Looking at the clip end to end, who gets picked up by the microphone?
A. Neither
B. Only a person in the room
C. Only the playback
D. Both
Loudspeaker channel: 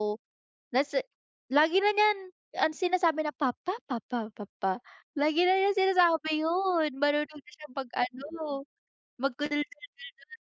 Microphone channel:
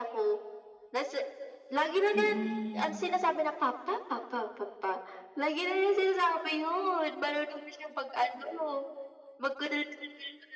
D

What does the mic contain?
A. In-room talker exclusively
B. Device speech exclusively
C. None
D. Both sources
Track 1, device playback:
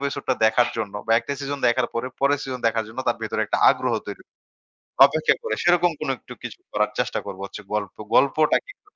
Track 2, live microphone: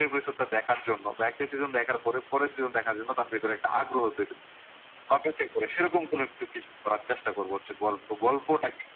B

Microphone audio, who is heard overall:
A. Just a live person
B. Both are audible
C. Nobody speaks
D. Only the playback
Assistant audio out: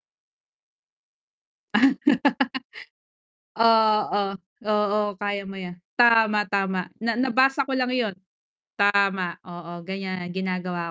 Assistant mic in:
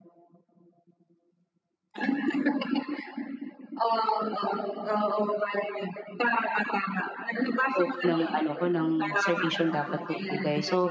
B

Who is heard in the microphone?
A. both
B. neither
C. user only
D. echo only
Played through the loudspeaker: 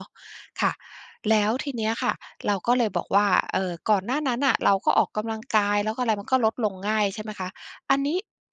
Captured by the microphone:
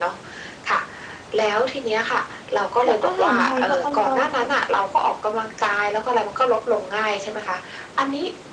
A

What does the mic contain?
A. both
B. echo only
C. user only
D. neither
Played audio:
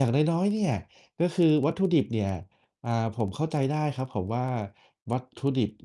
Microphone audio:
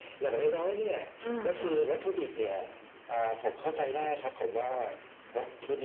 A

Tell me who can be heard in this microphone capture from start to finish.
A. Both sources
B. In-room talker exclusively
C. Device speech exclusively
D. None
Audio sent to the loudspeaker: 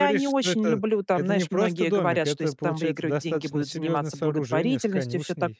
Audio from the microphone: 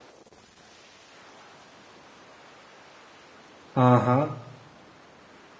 B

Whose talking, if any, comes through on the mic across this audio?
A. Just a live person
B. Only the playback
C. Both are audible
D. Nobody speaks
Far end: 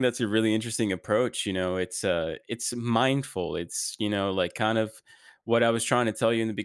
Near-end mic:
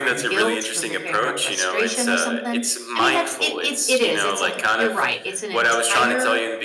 C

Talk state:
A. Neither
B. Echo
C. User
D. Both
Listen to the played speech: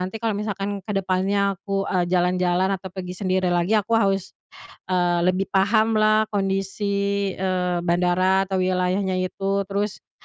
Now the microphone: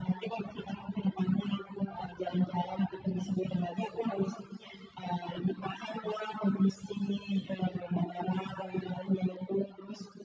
B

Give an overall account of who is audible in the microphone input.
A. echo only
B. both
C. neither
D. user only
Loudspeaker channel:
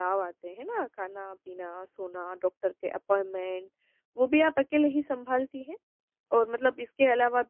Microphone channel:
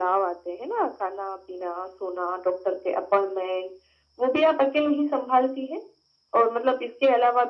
A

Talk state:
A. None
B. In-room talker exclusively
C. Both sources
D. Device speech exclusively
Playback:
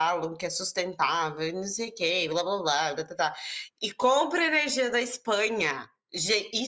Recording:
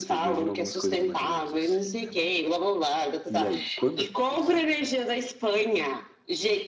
C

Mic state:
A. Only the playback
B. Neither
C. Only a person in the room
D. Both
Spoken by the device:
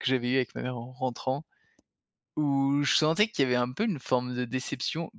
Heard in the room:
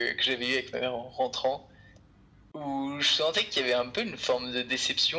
A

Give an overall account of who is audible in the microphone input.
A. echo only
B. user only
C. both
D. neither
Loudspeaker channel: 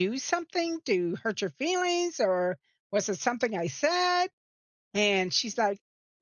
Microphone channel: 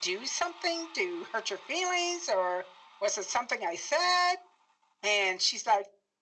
A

